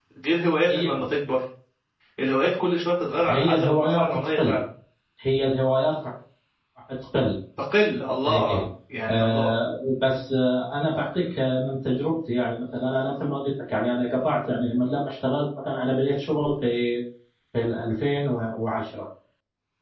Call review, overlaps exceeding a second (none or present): present